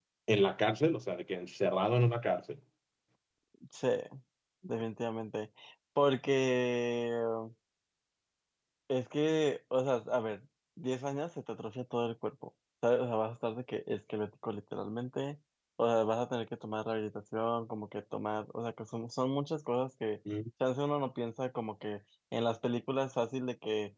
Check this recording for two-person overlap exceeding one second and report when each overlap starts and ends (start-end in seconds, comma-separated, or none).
none